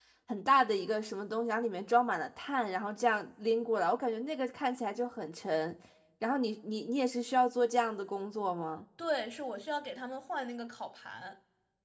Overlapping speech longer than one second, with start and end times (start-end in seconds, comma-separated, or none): none